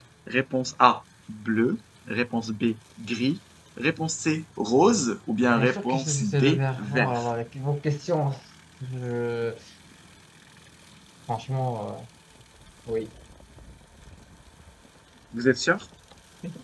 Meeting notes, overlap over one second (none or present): present